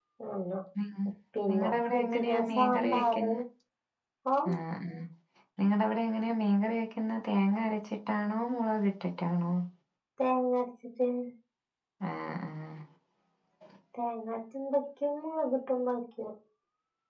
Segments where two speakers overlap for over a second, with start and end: 1.5-3.3

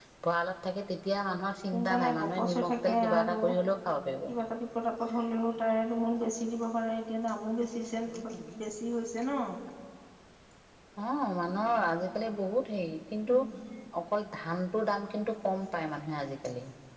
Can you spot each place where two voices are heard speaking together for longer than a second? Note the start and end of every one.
1.7-3.4

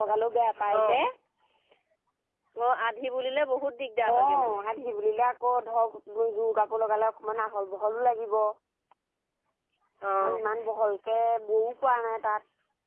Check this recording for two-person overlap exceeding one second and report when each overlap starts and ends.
none

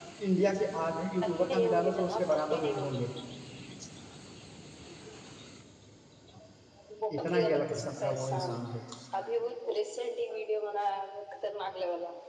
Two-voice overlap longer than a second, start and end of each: 1.2-3.0, 7.2-8.6

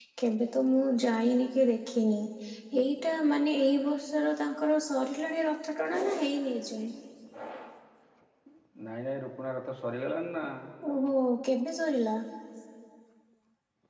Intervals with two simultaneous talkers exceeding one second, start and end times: none

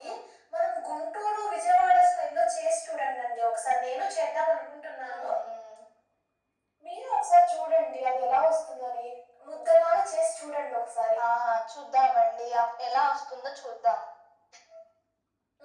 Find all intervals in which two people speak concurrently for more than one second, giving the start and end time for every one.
none

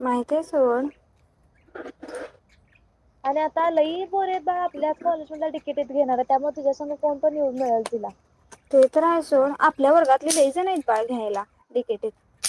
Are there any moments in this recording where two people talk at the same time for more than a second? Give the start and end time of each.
none

